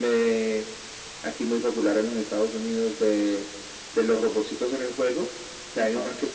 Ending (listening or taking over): listening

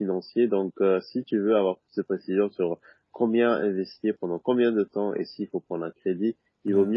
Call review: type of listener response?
listening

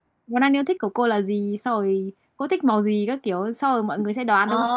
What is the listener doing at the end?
taking over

